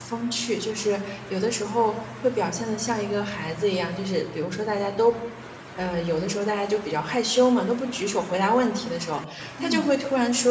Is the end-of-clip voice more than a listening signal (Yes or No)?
No